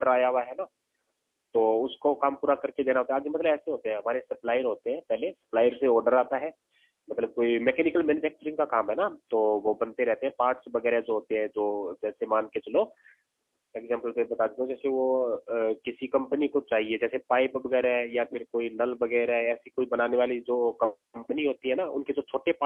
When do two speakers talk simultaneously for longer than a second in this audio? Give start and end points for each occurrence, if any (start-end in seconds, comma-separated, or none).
none